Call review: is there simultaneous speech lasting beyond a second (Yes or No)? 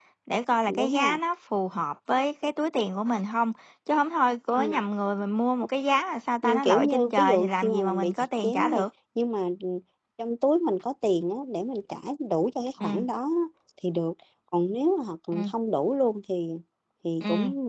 Yes